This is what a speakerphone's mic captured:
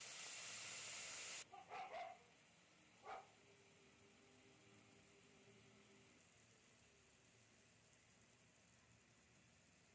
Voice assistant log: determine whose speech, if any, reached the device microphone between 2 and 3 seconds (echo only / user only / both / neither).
neither